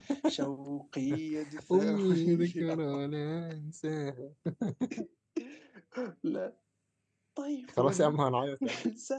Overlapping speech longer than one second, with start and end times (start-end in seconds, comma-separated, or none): 1.7-3.0